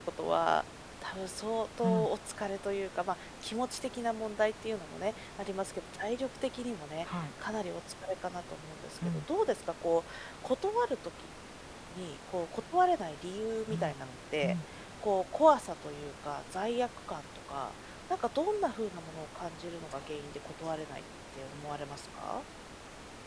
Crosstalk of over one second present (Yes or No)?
No